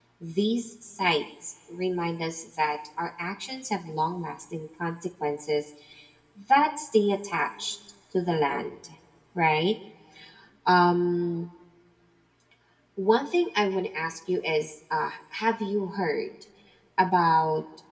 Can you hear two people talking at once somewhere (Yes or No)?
No